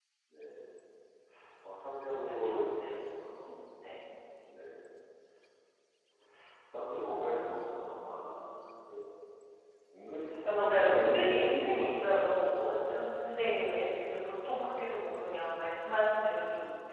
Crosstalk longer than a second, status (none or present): present